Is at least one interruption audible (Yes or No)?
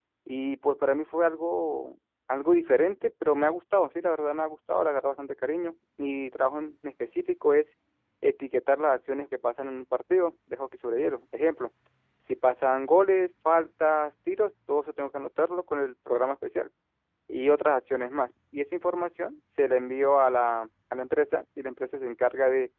No